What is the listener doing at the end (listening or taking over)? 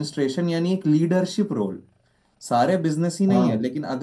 listening